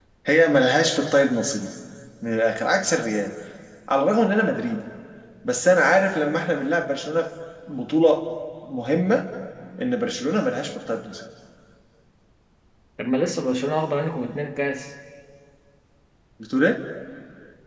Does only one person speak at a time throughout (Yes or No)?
Yes